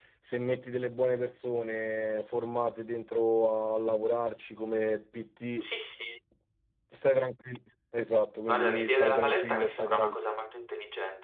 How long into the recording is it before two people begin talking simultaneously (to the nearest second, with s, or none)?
8 s